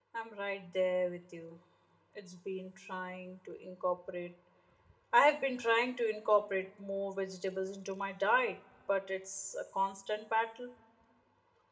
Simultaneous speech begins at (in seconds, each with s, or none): none